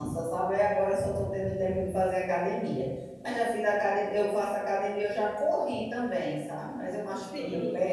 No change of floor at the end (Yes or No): Yes